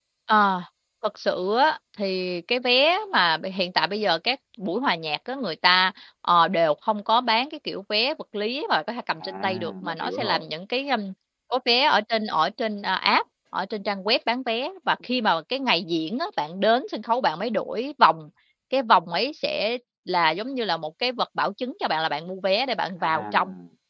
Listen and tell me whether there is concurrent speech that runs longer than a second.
Yes, from 9.2 s

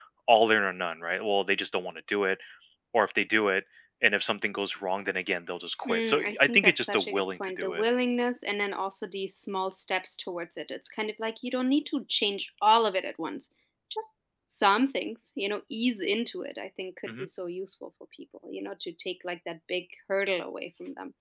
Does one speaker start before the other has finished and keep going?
Yes, from 5.8 s

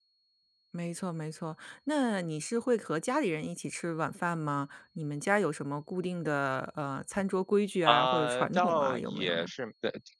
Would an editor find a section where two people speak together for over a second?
Yes, from 7.8 s

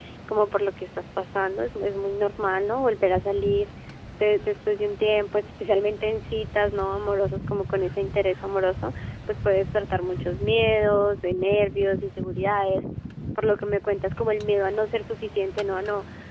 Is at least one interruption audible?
No

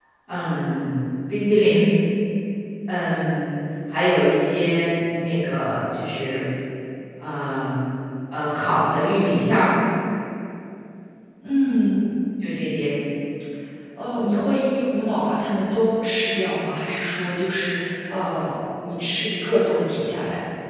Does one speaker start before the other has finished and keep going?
No

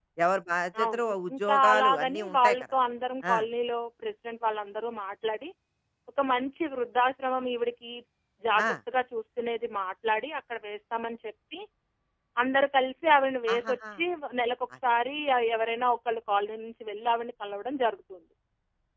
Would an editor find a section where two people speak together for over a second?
Yes, from 0.8 s

